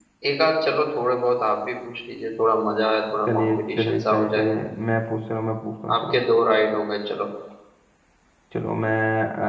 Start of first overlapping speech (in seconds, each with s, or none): 3.3 s